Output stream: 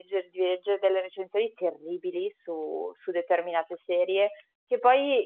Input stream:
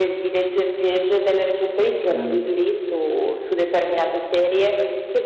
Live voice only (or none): Okay.